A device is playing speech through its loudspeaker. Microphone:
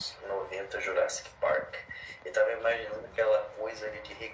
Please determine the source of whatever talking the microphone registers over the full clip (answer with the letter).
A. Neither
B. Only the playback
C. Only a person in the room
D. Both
B